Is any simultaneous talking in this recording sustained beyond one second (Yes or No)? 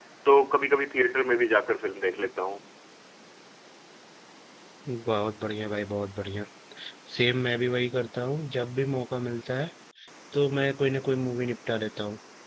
No